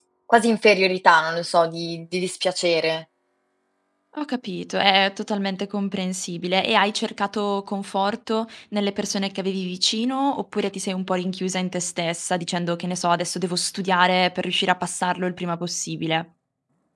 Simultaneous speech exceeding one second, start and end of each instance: none

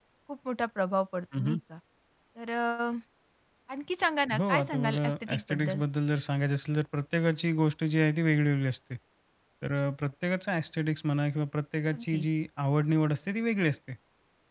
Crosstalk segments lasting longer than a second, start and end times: 4.4-5.8

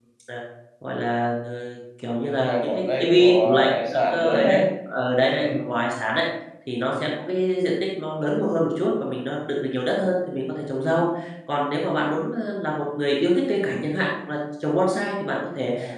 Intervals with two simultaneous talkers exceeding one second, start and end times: 2.2-4.6

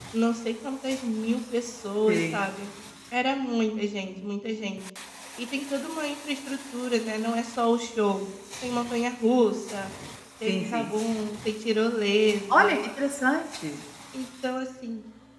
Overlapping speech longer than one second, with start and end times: none

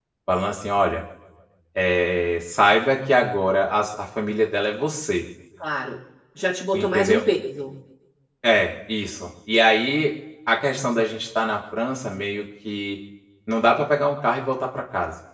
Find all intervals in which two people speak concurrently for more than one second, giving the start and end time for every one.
none

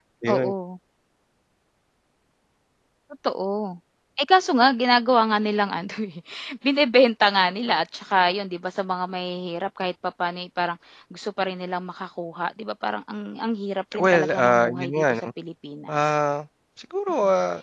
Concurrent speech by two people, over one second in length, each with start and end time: 14.0-15.3

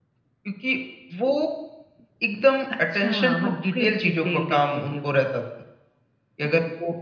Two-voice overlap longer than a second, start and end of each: 2.9-5.2

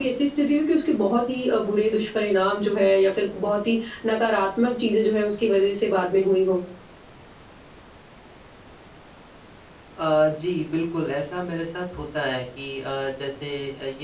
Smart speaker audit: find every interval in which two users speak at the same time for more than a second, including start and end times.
none

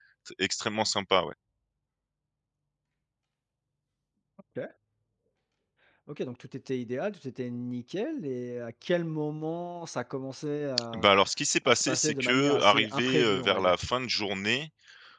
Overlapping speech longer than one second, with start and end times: 11.7-13.8

